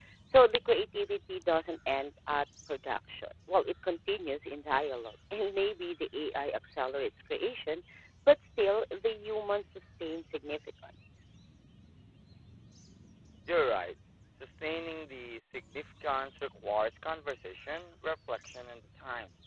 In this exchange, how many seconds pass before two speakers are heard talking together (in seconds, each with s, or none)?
none